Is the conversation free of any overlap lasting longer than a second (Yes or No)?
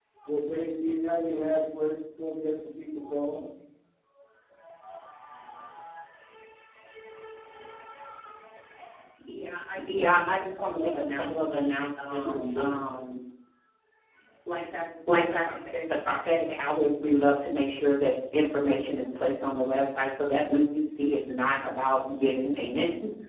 No